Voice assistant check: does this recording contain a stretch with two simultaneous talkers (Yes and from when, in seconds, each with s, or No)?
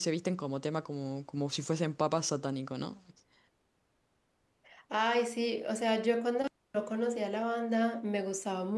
No